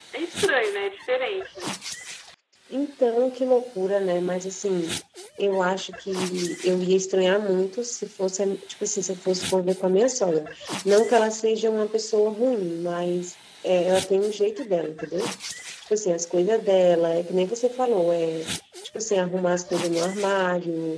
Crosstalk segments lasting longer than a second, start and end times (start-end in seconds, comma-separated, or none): none